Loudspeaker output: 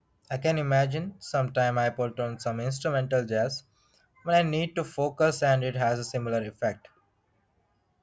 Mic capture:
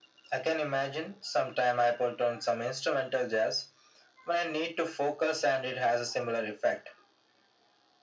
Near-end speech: none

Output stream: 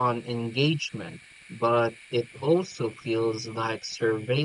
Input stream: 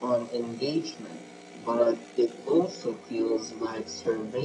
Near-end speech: none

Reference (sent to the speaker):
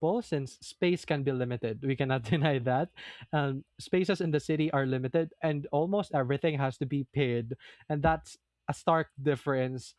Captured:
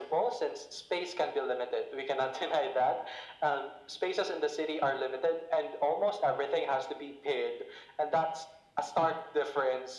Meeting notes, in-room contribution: none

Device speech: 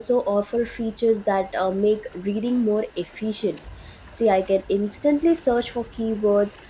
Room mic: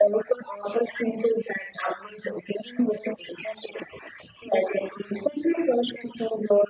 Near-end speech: none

